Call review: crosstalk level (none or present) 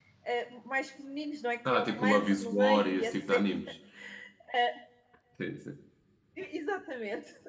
present